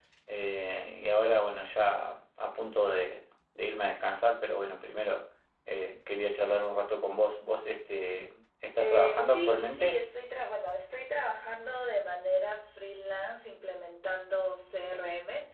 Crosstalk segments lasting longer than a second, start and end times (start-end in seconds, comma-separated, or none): 8.8-10.0